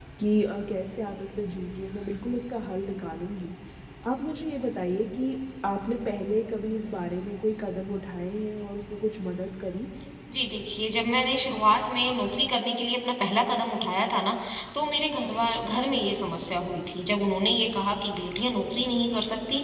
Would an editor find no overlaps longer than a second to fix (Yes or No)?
Yes